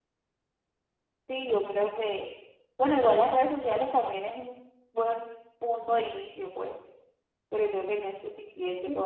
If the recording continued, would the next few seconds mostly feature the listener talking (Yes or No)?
Yes